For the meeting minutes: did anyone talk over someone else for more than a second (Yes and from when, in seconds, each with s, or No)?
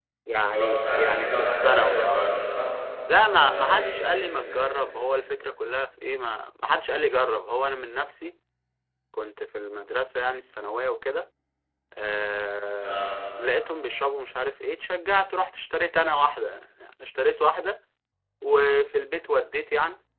Yes, from 0.5 s